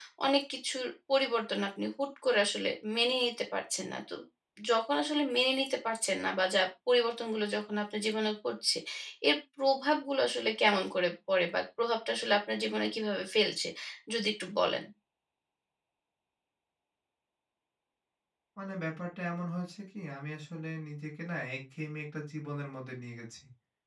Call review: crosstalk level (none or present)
none